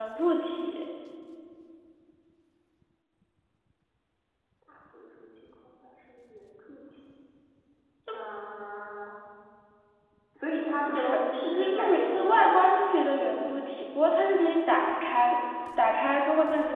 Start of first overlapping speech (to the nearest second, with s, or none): 11 s